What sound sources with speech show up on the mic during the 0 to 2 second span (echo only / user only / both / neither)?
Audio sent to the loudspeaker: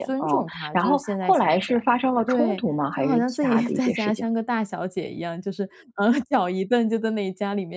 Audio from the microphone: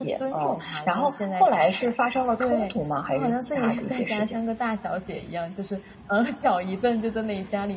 echo only